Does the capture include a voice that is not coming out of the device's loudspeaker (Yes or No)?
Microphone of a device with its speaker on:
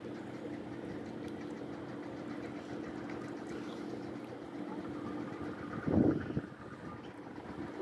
No